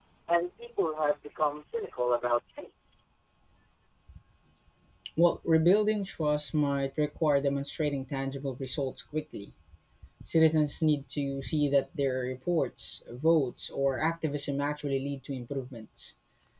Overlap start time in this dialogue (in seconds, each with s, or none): none